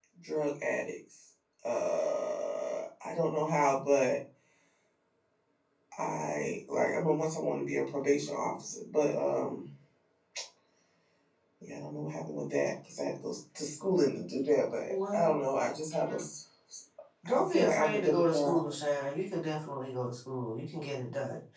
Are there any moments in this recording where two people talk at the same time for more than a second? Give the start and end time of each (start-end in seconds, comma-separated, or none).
17.3-18.7